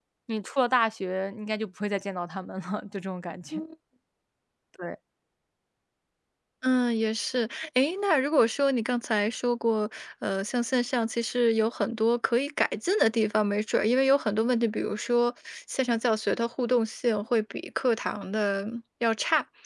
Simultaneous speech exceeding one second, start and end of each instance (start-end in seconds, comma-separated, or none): none